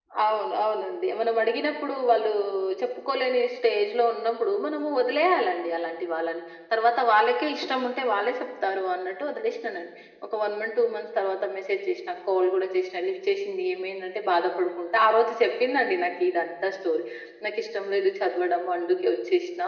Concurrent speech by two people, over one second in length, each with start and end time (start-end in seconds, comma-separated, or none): none